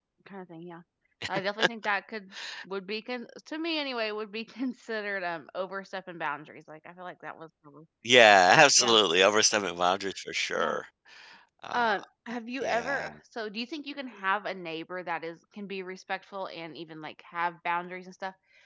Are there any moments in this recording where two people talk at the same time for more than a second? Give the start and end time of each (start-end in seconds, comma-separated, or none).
none